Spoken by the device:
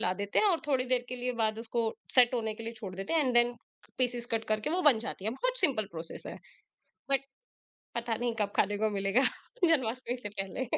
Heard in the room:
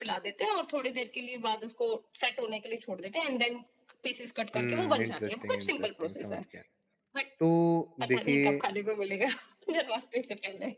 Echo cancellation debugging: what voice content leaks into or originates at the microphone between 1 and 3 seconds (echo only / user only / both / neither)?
echo only